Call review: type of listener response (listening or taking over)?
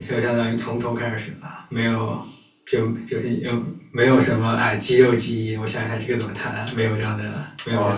taking over